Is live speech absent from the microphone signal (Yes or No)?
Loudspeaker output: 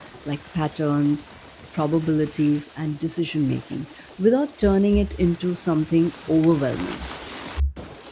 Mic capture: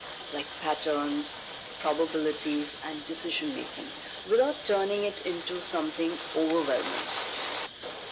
Yes